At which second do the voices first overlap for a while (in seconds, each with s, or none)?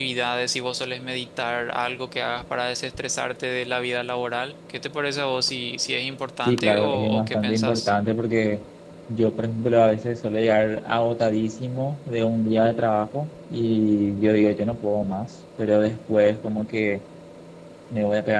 6.4 s